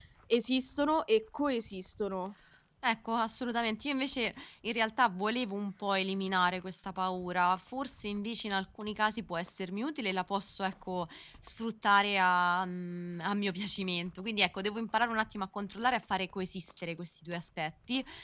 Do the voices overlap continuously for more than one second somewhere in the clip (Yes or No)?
No